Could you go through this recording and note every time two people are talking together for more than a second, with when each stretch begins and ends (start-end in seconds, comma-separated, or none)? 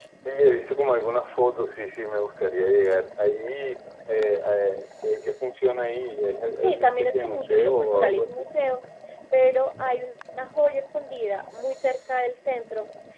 6.6-8.5